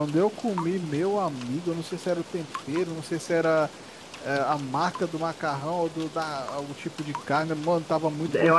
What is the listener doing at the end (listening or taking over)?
taking over